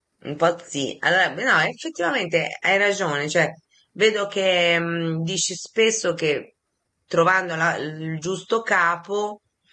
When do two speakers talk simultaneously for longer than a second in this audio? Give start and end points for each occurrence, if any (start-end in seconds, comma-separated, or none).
none